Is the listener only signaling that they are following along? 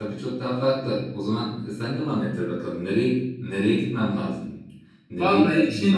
No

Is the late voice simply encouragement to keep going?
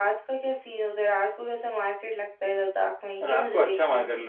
No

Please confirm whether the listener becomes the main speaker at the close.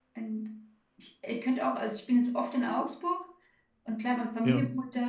No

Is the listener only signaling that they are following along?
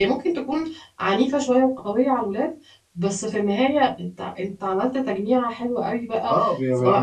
No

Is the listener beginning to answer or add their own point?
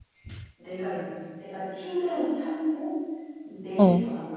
No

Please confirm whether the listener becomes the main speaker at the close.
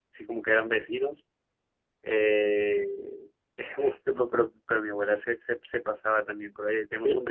No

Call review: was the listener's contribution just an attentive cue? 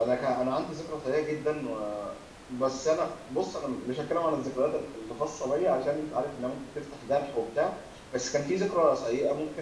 Yes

